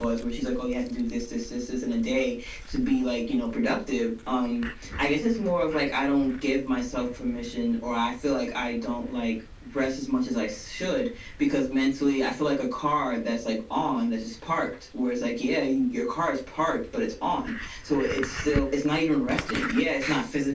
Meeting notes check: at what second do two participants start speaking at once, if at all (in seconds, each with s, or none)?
none